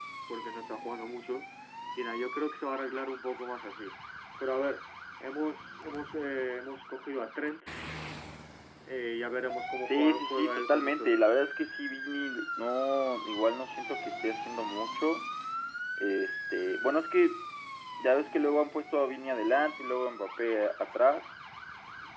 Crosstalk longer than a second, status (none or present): present